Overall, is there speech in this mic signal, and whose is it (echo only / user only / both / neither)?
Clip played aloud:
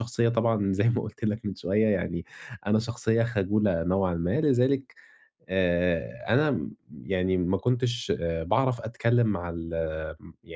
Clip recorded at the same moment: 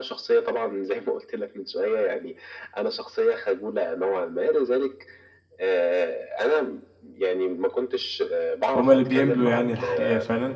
both